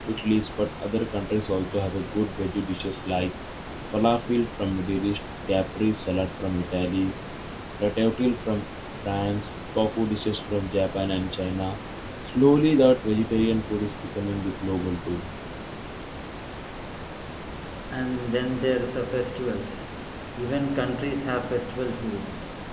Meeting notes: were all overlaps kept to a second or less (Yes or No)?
Yes